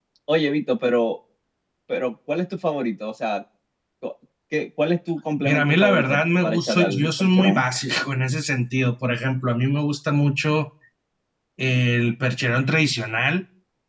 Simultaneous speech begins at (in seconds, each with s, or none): 5.4 s